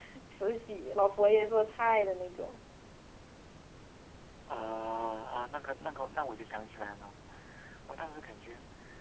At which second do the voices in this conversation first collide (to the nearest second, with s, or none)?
none